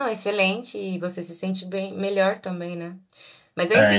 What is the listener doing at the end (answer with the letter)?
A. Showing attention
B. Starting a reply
B